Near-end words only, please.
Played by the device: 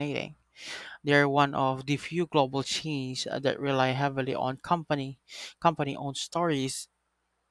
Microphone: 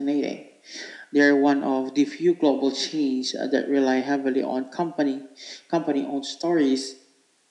none

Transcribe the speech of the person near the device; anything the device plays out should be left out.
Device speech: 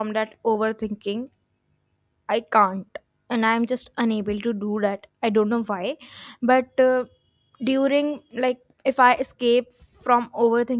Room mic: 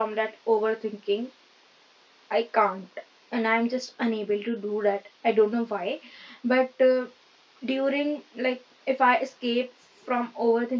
none

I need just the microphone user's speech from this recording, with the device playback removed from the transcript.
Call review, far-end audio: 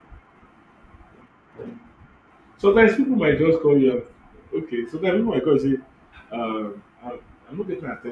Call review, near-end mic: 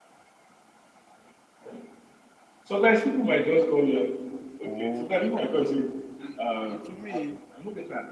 or like I don't know. the- To me,

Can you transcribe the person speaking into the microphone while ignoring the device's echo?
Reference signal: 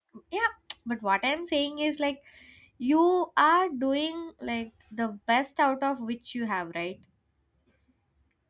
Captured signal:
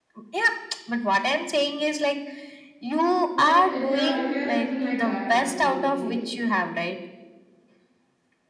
But if you are if you are thinking like that, that will be okay.

